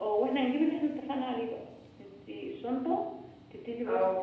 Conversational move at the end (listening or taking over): listening